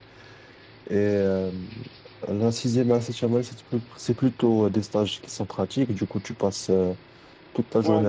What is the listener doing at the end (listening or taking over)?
taking over